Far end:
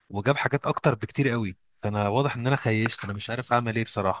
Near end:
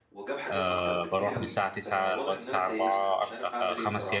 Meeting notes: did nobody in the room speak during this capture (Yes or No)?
No